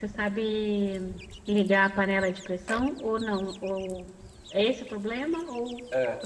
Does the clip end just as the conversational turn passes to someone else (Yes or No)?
Yes